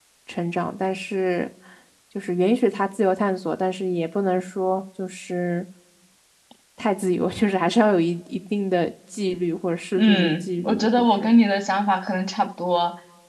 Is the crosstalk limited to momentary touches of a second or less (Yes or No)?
No